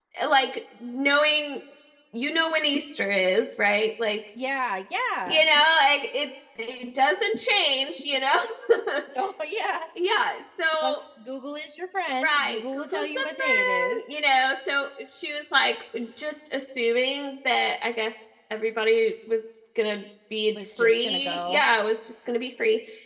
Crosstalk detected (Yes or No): Yes